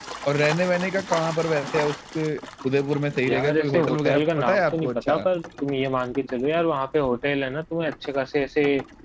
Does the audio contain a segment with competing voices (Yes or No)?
Yes